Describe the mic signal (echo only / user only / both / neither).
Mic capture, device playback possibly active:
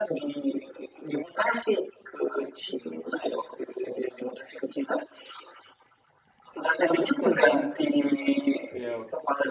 both